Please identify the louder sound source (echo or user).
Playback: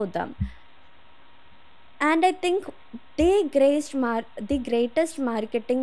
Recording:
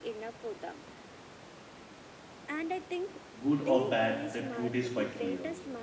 user